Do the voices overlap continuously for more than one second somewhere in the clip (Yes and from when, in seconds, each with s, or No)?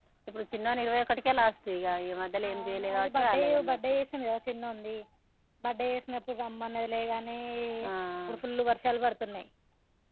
Yes, from 2.4 s